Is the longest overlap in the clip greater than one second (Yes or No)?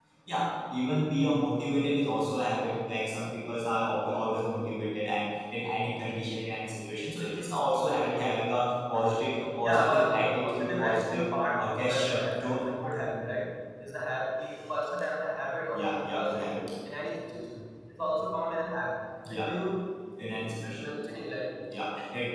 Yes